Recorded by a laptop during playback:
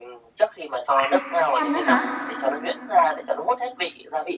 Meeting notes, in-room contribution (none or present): present